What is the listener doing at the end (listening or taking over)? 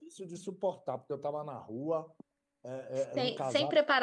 taking over